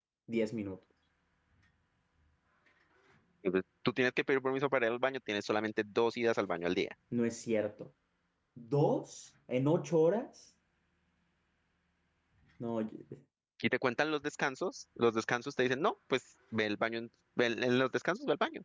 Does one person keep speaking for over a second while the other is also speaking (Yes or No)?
No